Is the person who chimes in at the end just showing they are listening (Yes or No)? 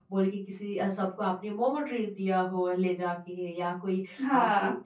Yes